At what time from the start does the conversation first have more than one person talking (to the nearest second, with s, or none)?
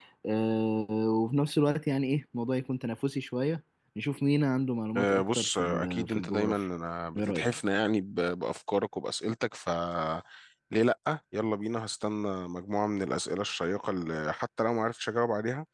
5 s